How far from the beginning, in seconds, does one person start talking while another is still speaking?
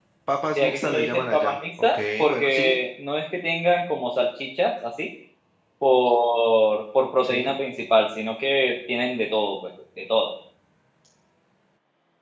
0.6 s

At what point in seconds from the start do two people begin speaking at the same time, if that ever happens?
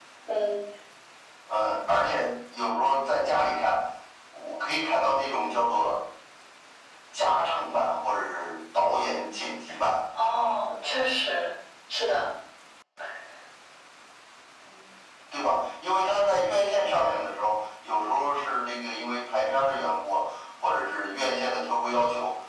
none

